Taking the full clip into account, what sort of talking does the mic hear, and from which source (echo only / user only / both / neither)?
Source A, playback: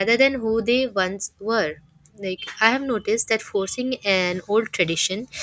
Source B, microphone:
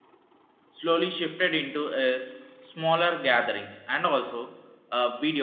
user only